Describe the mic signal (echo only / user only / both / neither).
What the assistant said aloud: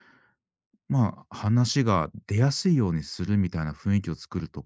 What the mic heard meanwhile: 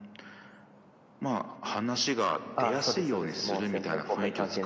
both